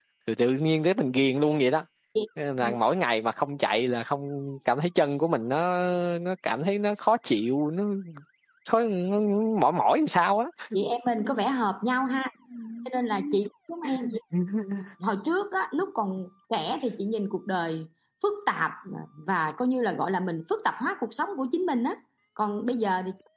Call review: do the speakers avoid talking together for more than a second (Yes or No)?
Yes